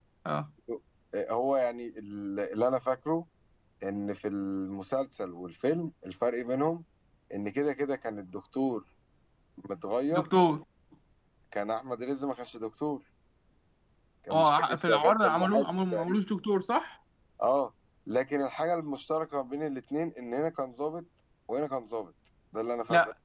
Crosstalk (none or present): present